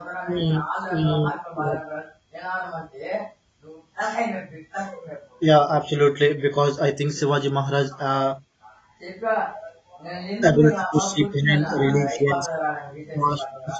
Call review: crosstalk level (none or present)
present